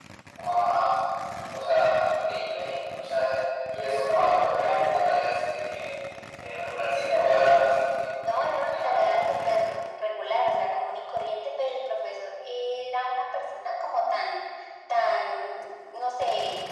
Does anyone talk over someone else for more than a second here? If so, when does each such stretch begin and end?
8.2-9.7

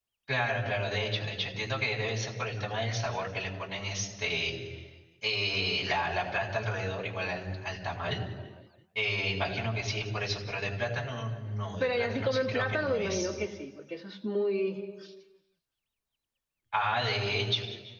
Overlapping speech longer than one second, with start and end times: 11.8-13.3

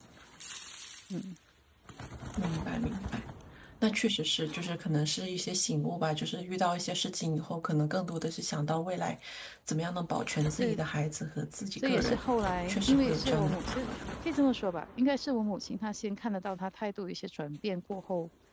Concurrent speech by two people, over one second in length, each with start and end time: 12.7-13.9

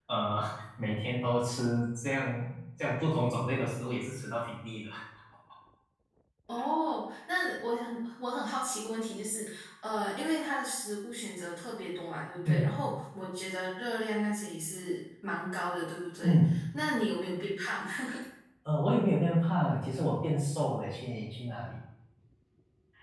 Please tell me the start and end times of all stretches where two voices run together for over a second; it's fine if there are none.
none

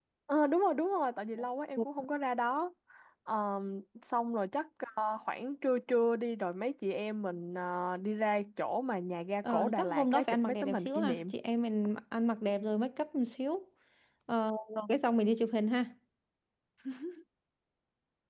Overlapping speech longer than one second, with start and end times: 9.5-11.3

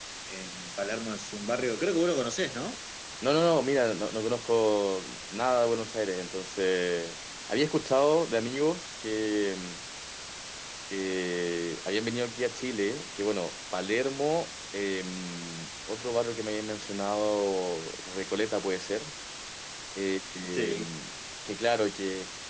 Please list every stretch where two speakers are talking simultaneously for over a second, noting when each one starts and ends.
none

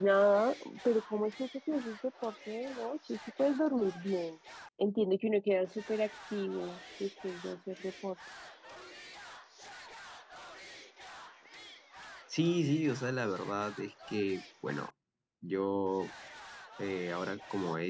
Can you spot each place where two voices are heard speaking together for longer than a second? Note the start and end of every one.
none

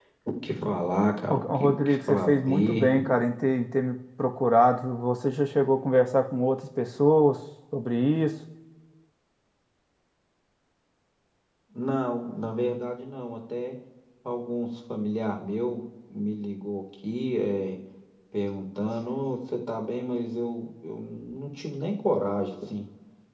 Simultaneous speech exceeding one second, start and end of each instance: 1.3-2.9

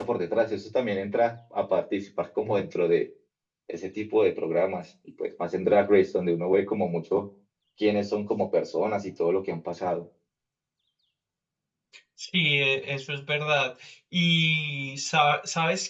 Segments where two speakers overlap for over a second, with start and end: none

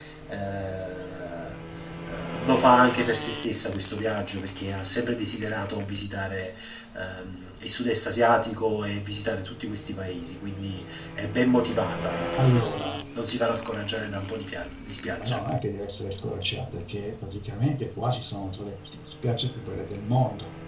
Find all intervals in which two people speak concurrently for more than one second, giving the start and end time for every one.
none

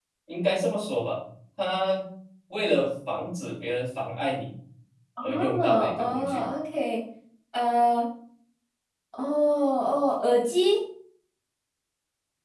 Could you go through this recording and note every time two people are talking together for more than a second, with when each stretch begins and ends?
5.2-6.4

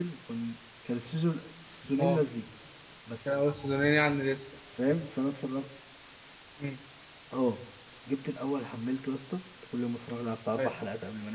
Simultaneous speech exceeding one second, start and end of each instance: none

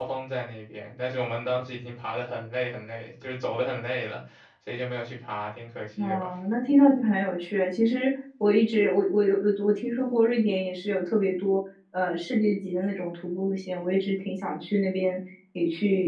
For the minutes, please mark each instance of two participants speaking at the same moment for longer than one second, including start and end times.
none

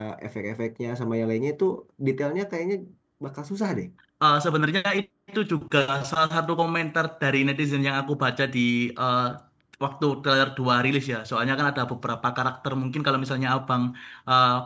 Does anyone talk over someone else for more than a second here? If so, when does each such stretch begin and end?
none

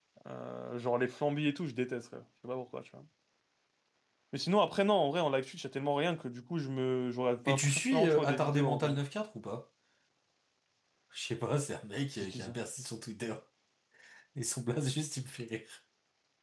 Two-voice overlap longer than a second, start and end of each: 7.5-9.0

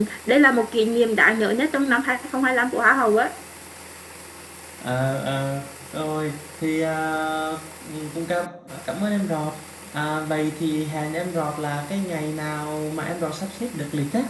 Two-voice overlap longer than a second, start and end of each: none

